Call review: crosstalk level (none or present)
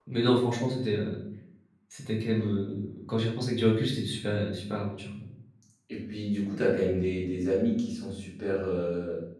none